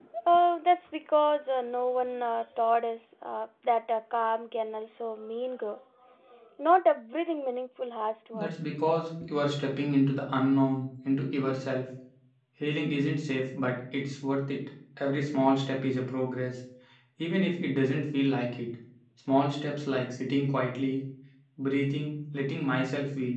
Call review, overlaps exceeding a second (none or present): none